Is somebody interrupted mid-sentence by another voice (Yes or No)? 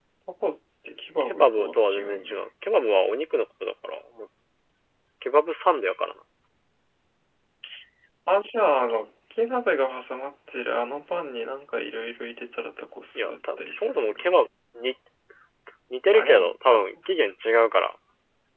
Yes